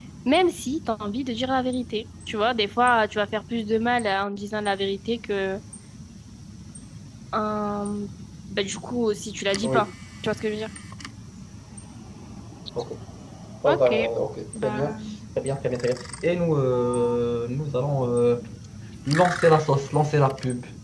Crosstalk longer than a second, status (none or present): none